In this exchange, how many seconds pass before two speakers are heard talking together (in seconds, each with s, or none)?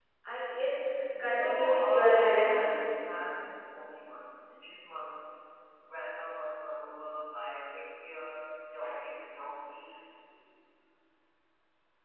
1.2 s